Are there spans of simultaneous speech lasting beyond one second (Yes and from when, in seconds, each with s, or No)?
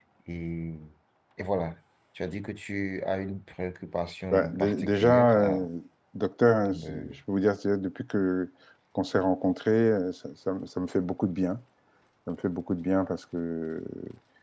Yes, from 4.3 s